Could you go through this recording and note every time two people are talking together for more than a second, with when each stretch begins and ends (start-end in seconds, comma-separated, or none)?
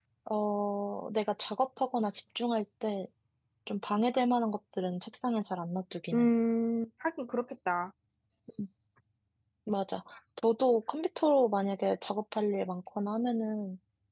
none